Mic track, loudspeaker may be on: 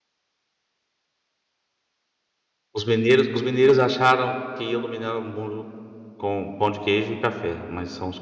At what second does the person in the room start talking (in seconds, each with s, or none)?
2.7 s